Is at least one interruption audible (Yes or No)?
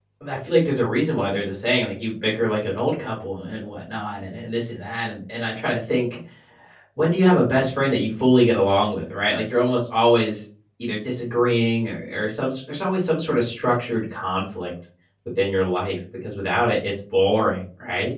No